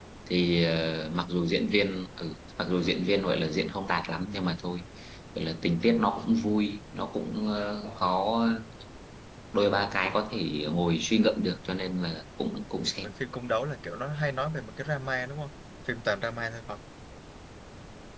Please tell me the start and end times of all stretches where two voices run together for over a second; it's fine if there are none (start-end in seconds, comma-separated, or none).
none